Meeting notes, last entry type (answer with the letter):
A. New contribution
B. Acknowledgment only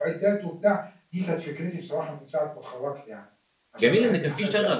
A